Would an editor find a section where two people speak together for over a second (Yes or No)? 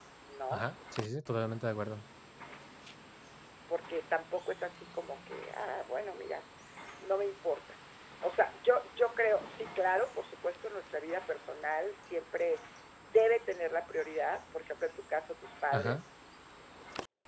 No